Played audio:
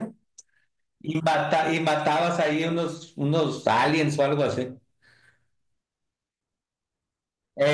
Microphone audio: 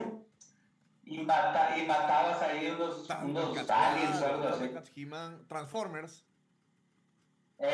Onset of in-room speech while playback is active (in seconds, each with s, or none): 3.1 s